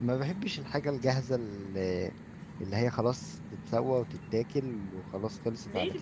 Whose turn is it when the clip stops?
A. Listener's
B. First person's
A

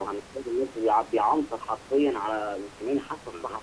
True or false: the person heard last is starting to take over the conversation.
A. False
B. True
A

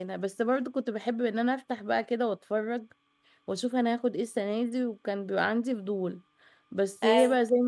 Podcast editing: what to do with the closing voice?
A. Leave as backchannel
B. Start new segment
A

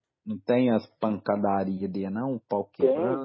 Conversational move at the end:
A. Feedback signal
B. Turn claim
B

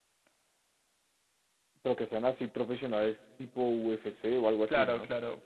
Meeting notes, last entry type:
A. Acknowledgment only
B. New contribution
B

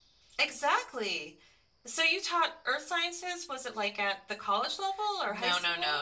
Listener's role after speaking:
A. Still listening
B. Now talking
B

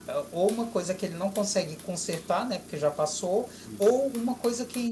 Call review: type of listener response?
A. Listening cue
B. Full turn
A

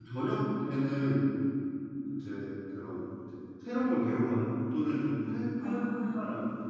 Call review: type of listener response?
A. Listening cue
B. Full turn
A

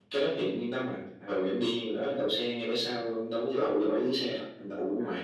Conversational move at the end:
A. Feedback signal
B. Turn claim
A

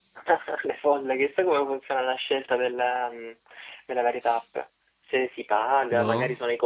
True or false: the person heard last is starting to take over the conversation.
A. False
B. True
A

